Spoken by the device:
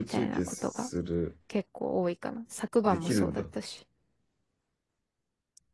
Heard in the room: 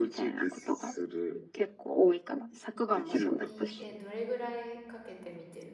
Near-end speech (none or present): present